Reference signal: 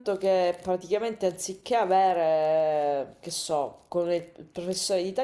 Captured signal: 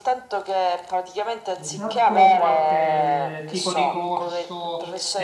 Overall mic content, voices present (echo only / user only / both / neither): both